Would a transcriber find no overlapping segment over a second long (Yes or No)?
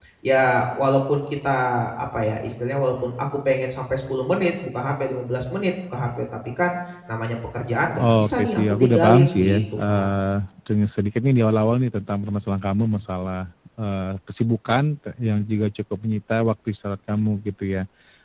No